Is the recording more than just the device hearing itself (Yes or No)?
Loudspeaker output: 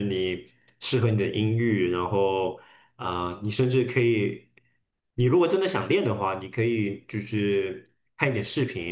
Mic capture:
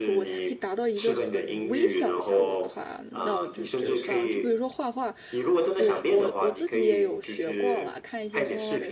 Yes